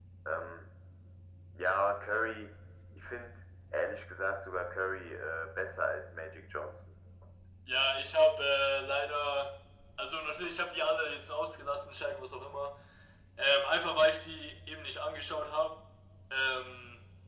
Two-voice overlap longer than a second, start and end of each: none

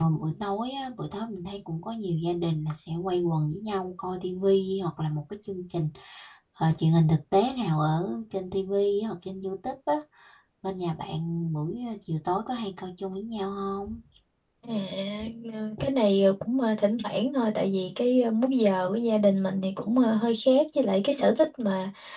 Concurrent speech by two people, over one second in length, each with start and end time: none

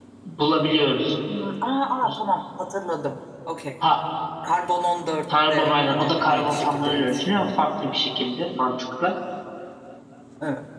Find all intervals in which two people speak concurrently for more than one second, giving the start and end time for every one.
5.5-7.5

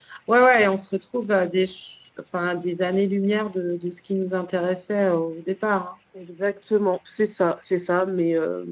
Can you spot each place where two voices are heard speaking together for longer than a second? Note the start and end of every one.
none

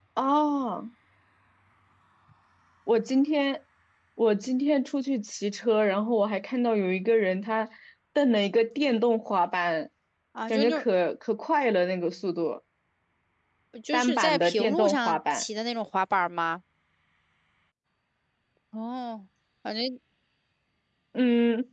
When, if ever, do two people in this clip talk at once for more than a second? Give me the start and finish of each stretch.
13.9-15.4

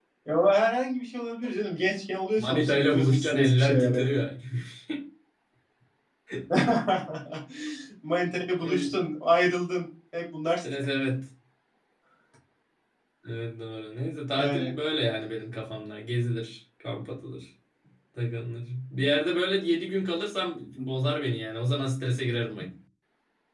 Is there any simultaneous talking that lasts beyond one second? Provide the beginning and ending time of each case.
2.4-4.1

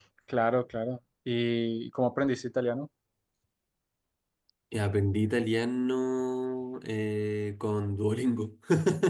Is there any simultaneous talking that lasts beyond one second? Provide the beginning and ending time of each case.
none

